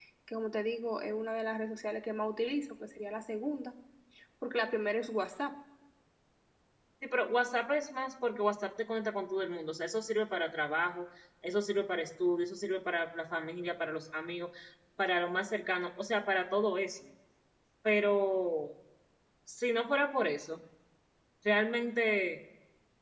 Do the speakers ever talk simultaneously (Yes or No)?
No